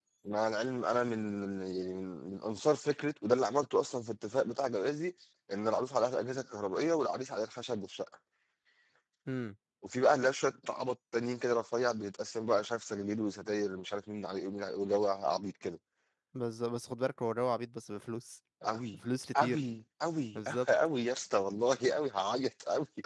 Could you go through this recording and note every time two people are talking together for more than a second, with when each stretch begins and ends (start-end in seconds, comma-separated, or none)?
none